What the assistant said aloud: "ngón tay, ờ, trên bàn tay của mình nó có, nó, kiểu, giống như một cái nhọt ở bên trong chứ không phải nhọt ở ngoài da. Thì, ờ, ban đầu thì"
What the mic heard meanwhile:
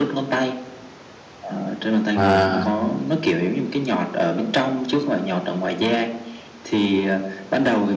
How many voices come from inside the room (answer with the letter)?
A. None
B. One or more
B